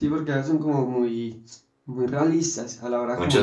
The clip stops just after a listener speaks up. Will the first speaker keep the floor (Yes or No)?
No